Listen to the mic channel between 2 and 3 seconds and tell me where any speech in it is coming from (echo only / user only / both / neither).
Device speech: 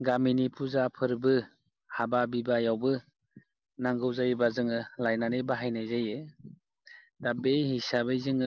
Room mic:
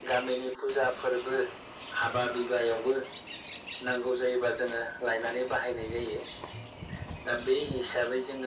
echo only